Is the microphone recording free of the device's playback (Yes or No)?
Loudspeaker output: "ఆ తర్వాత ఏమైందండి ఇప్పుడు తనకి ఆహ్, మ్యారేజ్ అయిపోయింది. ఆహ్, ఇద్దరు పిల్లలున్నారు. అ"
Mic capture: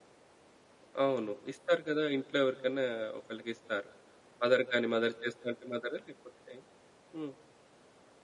Yes